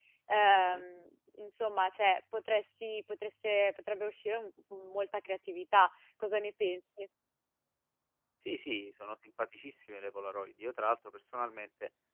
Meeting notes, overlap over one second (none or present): none